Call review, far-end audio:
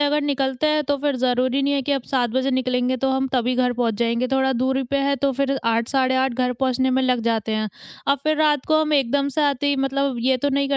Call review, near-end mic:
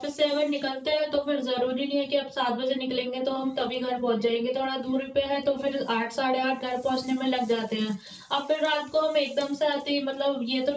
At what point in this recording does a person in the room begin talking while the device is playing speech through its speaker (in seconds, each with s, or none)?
none